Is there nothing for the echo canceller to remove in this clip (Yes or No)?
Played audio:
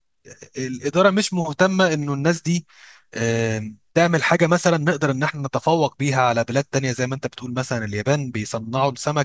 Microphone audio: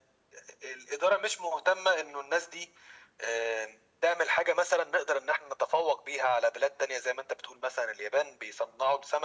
No